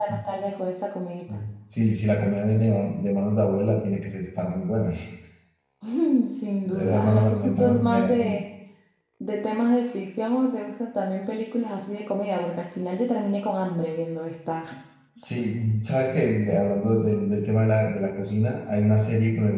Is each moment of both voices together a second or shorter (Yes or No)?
No